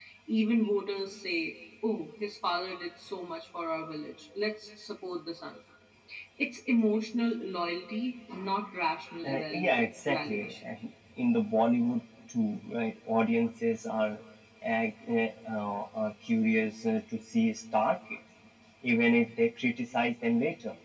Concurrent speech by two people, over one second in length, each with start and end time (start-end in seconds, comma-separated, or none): 9.2-10.6